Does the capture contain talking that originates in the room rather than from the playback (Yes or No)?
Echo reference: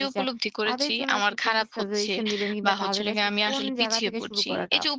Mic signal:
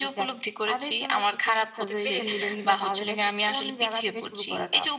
Yes